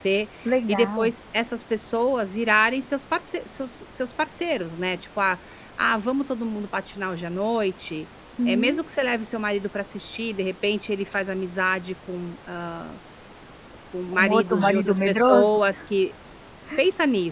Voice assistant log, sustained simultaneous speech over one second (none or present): present